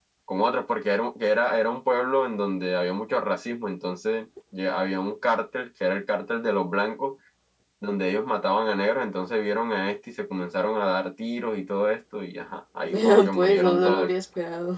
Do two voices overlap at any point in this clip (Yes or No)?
Yes